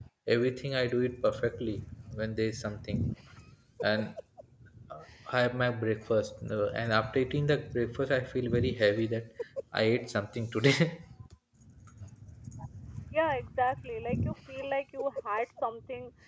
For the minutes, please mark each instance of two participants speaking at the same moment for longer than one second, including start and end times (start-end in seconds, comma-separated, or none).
none